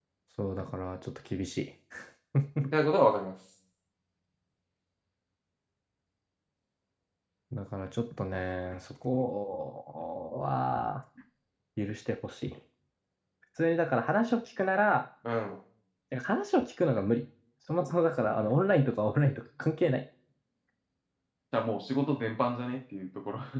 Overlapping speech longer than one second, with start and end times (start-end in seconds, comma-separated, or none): none